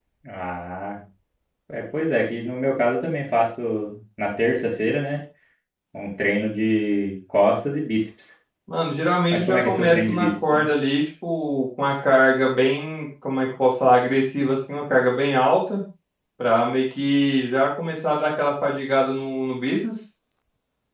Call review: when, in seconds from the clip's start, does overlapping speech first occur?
9 s

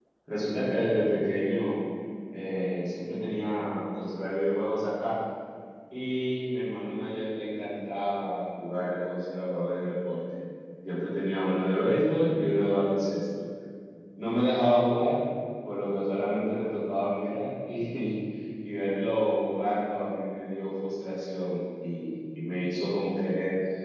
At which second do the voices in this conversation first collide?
none

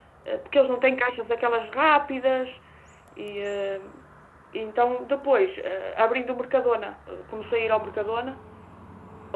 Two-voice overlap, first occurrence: none

